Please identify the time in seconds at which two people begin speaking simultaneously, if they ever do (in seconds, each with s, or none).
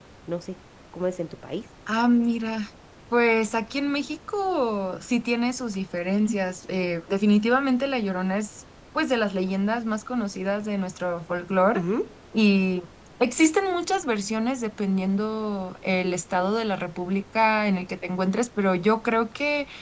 none